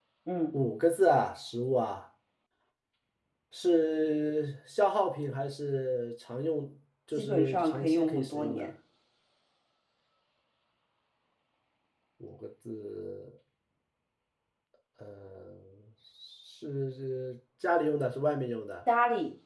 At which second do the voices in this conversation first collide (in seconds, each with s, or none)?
7.2 s